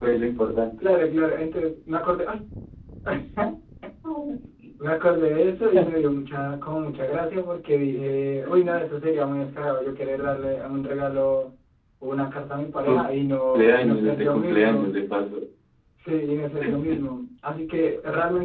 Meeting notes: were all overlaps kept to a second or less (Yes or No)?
No